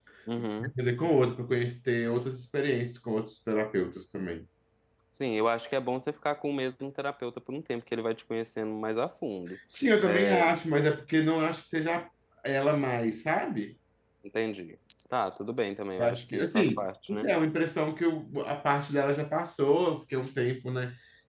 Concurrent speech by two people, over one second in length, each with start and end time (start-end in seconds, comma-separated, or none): 16.0-17.3